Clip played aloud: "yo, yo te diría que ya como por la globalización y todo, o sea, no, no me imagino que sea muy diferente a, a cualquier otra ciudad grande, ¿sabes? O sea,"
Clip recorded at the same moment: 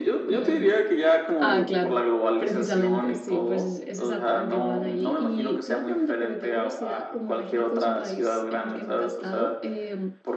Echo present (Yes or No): Yes